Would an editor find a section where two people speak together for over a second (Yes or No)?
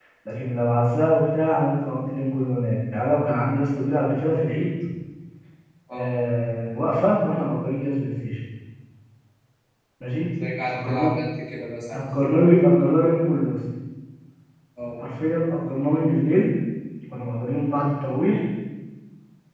No